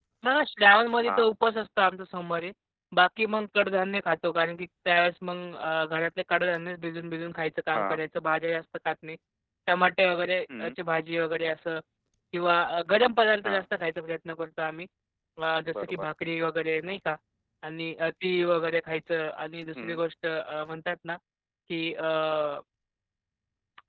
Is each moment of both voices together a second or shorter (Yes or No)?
Yes